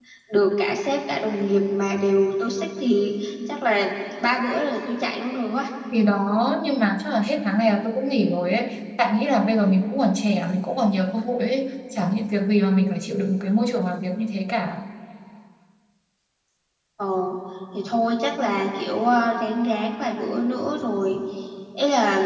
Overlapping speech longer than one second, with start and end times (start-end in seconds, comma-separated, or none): none